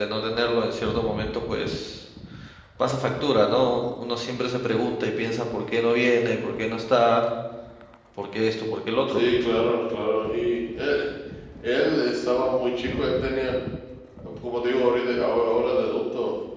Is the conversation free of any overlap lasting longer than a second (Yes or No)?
Yes